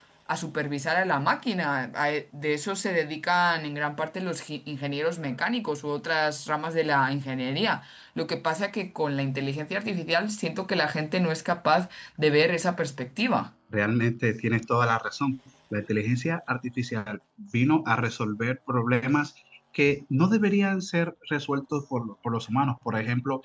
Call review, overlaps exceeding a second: none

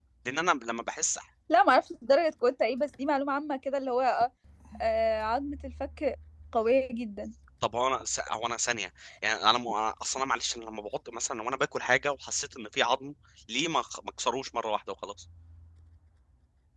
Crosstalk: none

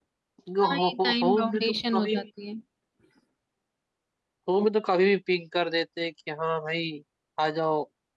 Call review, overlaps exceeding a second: present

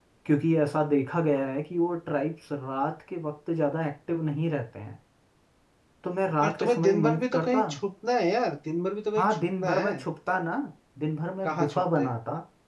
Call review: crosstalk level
present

